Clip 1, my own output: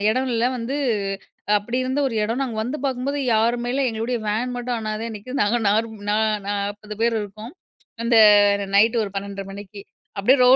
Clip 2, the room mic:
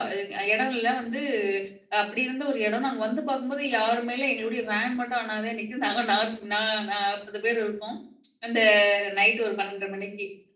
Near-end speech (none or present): none